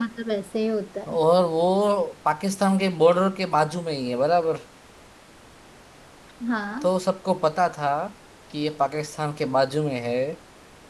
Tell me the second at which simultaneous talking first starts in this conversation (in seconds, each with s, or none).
none